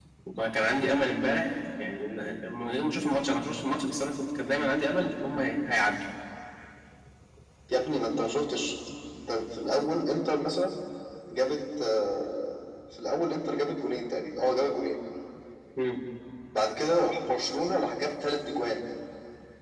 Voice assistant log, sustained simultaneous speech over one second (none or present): none